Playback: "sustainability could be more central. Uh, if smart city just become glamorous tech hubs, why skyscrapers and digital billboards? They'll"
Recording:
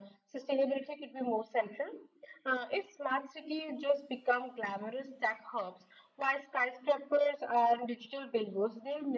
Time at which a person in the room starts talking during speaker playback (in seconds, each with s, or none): none